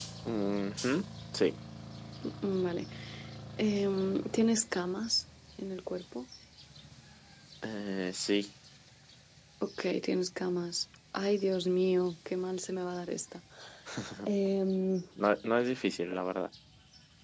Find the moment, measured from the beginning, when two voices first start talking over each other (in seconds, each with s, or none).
none